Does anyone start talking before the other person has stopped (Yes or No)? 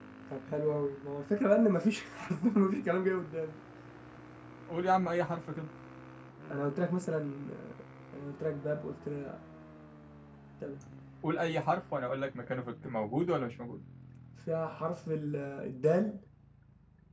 No